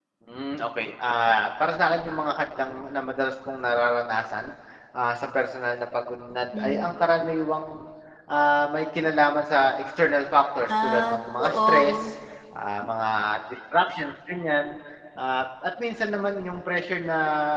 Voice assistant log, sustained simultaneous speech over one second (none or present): present